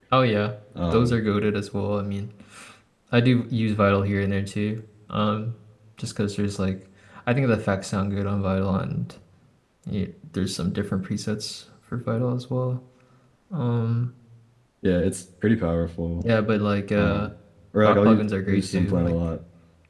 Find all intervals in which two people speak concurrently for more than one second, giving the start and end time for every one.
17.8-19.1

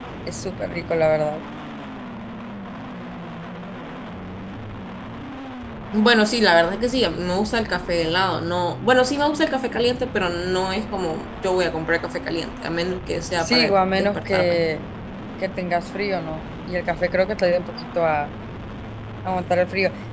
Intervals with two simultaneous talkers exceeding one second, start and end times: 13.4-14.6

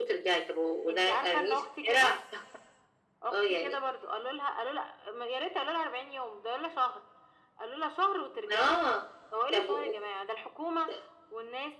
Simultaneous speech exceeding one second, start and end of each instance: 0.9-2.2

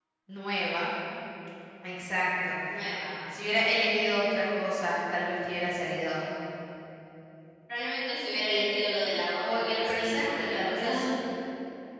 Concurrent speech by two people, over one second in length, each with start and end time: 9.4-11.1

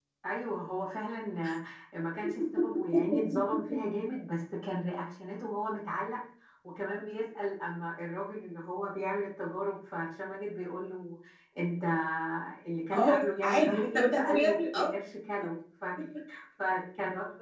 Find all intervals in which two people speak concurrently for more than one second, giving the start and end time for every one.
12.9-14.9

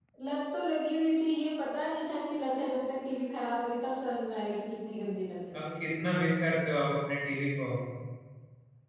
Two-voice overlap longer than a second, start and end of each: none

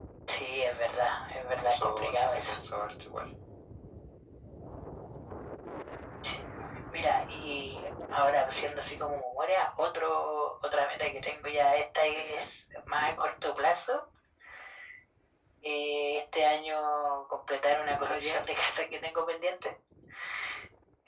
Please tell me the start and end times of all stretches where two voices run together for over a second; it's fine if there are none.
0.9-2.5

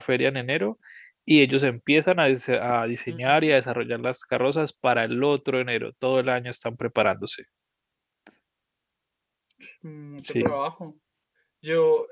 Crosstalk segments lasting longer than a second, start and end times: none

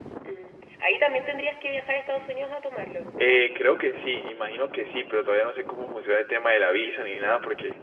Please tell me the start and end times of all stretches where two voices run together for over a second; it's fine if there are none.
none

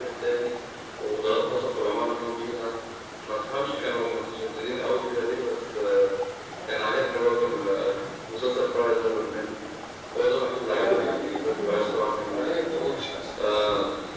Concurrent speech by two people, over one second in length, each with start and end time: 10.7-12.5

